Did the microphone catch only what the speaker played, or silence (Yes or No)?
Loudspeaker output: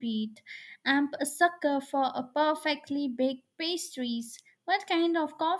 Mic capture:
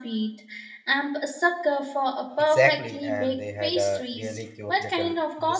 No